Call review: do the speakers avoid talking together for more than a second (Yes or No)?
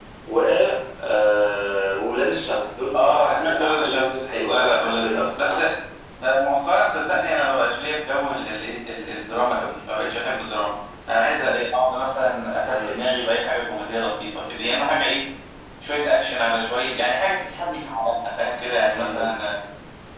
No